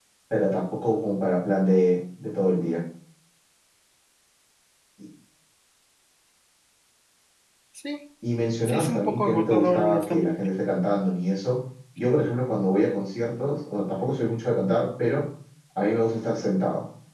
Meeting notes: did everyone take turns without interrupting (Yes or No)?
No